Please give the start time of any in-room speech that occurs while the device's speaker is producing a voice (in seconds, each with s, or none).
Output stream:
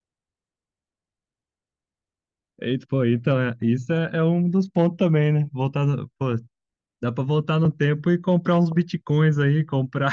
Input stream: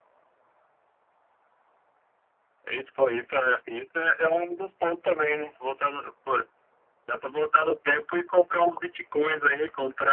none